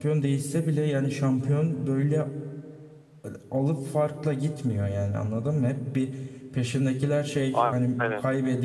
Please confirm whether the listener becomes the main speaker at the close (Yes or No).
No